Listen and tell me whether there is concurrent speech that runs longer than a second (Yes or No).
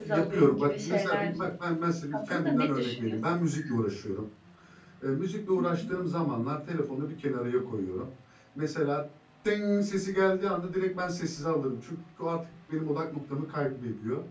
Yes